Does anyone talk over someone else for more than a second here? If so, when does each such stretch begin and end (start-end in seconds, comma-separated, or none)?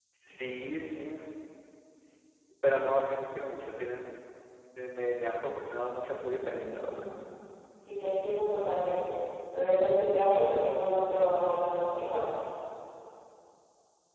none